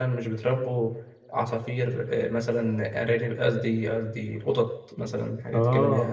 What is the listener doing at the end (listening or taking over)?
taking over